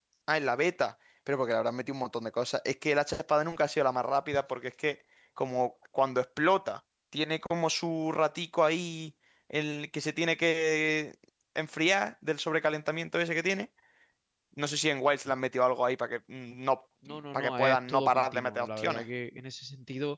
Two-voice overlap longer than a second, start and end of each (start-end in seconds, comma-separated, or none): 17.3-19.0